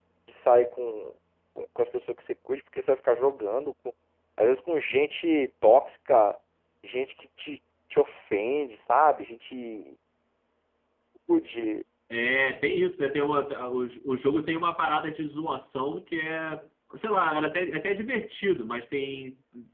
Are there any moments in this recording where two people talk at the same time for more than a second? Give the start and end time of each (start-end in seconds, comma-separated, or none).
none